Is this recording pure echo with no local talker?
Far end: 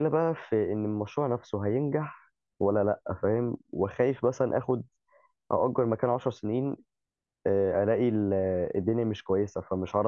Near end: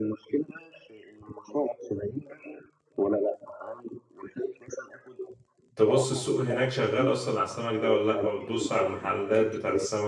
No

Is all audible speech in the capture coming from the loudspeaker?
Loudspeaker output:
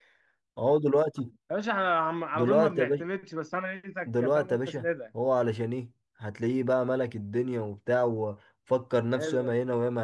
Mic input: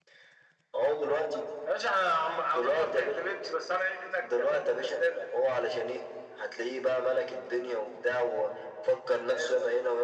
Yes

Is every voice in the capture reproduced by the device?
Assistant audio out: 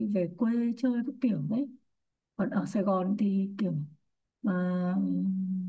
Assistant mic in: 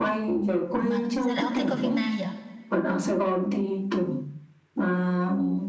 No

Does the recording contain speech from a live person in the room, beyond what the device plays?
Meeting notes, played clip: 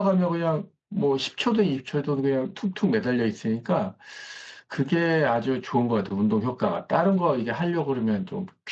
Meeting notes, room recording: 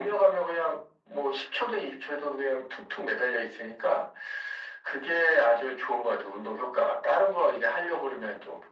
No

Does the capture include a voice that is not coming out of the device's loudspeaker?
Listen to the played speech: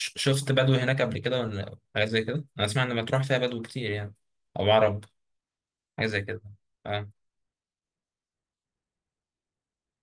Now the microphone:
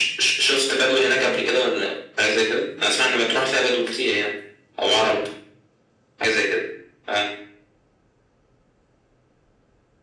No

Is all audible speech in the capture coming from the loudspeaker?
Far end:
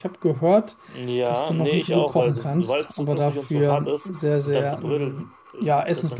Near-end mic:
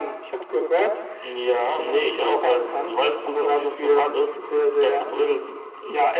Yes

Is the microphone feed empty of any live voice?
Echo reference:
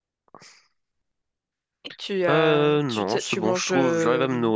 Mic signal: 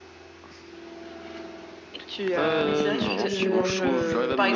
No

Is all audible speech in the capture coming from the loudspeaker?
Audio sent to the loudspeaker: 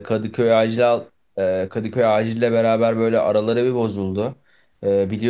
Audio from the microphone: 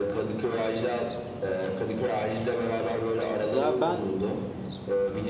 No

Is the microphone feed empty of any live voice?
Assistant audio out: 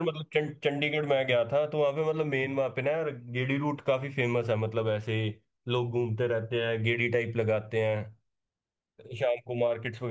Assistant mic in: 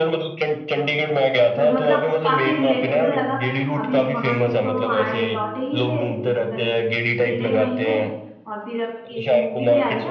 No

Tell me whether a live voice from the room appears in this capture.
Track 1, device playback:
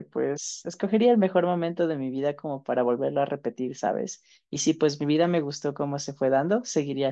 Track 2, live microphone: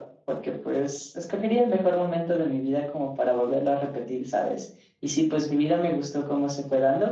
No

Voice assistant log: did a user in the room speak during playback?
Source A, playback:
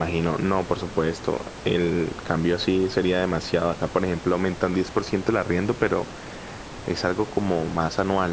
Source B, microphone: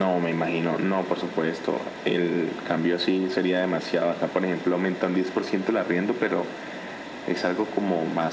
No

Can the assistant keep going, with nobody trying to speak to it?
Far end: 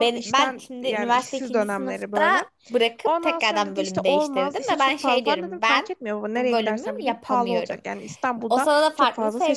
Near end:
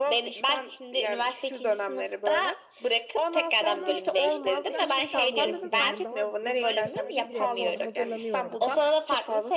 No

